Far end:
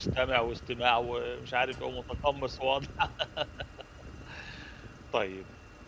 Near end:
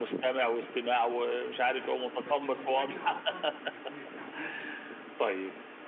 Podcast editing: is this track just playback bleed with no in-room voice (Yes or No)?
No